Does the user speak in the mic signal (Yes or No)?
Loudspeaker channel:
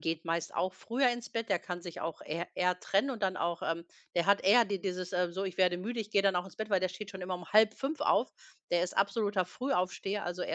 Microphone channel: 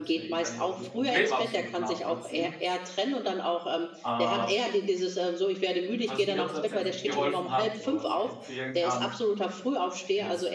Yes